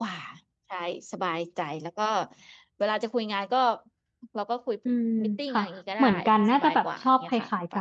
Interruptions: present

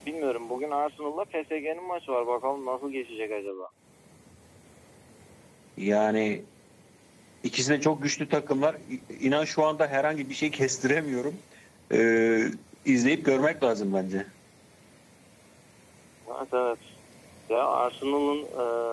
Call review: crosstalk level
none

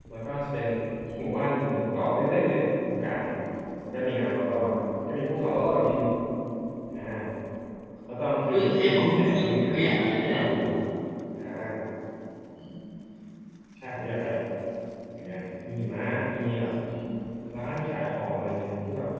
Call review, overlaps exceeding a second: present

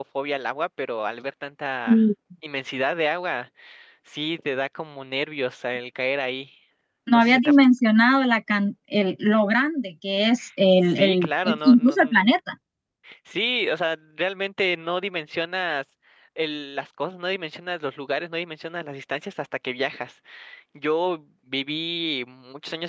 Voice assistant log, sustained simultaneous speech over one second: present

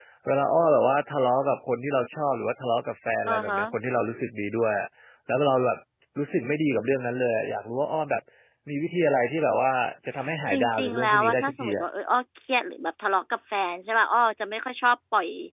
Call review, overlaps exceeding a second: present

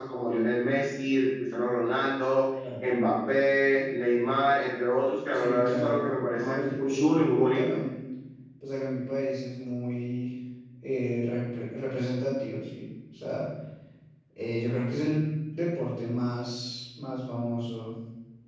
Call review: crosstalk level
present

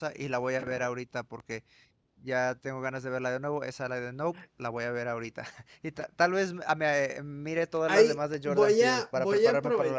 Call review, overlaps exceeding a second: present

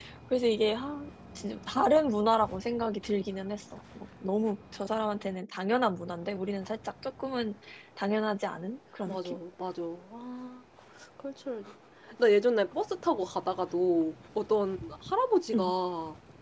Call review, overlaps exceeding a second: none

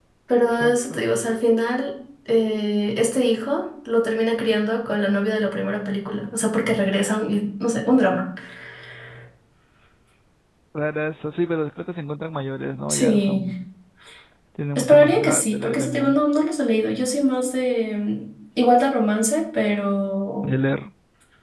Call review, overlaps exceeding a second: present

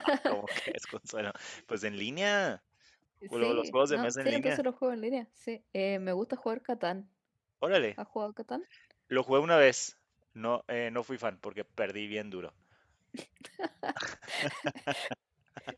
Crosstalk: present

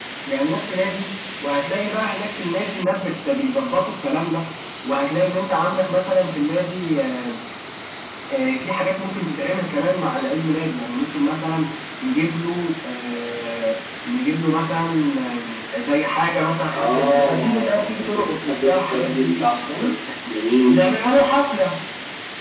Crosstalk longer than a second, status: present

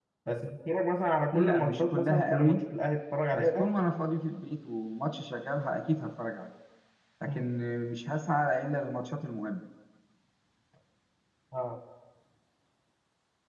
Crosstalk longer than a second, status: present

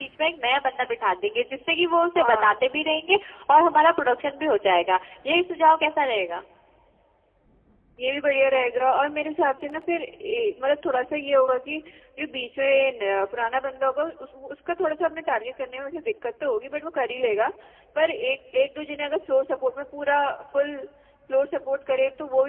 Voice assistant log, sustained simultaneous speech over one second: none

